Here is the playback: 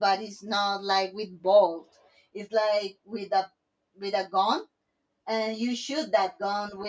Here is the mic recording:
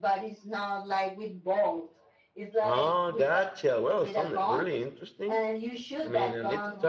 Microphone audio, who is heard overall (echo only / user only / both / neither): both